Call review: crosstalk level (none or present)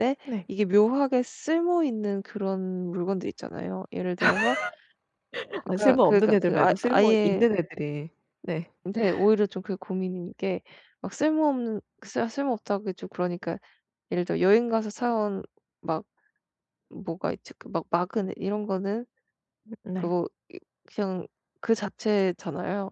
present